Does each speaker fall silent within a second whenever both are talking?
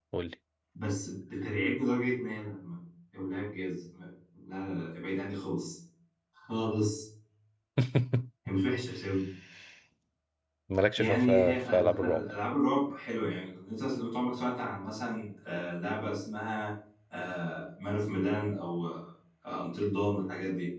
No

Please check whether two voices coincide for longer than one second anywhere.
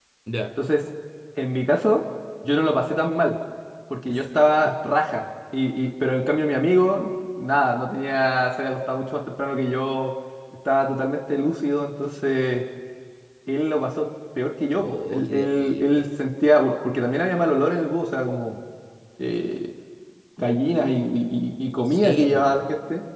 Yes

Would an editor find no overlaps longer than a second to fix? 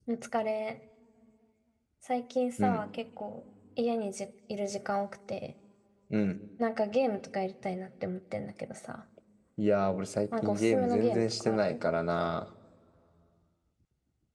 No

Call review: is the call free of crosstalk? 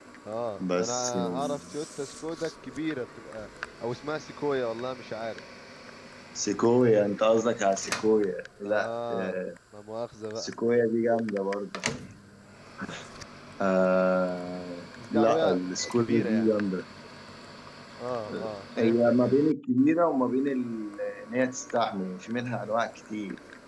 No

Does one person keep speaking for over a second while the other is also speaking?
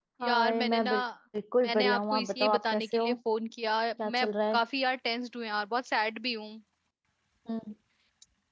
Yes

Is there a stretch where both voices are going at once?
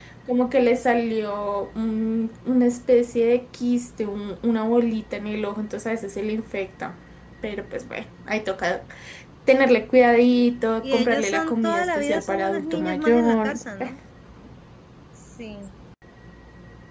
Yes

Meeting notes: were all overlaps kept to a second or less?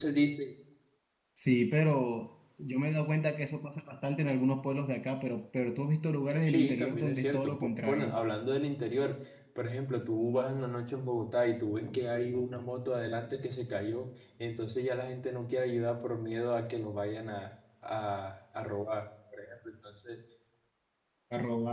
No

